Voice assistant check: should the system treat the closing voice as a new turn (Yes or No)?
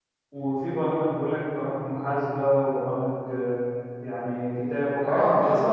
Yes